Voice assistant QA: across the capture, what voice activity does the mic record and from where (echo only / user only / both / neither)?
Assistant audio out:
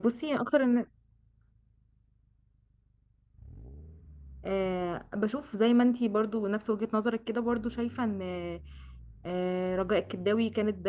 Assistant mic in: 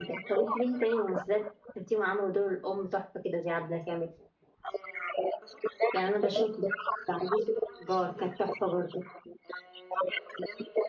both